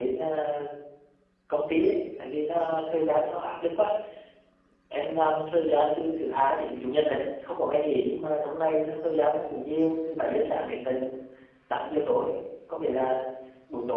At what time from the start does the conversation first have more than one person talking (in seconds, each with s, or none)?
none